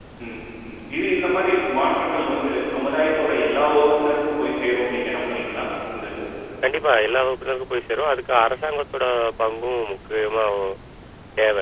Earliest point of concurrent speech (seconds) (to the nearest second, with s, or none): none